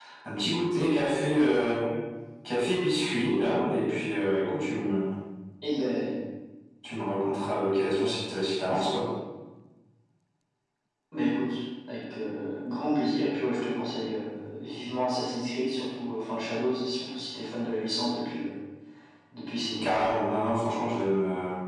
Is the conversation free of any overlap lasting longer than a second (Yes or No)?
Yes